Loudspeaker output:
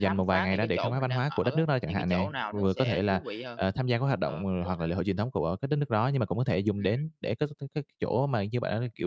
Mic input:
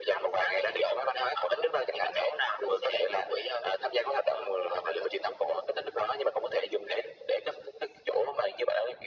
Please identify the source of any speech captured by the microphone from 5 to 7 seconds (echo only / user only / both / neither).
echo only